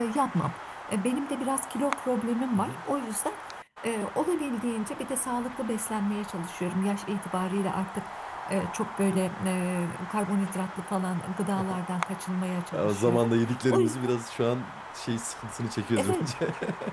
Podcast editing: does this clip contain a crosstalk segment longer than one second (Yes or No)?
No